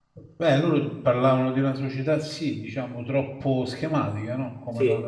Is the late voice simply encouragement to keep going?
Yes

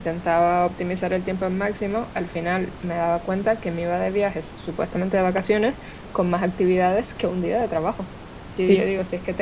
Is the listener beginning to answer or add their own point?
No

